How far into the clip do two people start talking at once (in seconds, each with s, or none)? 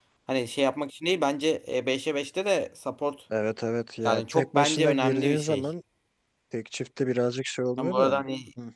4.0 s